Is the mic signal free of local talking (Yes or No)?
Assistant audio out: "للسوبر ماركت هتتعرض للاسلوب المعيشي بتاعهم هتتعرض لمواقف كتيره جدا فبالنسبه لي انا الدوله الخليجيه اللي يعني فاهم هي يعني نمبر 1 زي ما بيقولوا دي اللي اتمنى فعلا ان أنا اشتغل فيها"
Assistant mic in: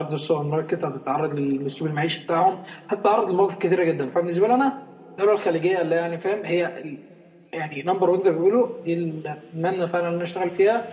Yes